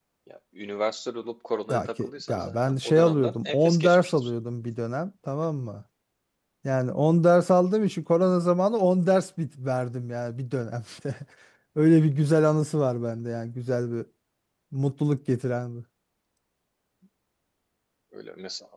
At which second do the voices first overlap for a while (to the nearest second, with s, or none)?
2 s